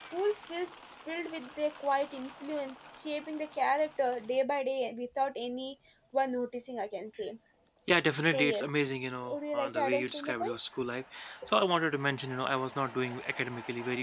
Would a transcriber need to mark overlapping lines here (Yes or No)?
Yes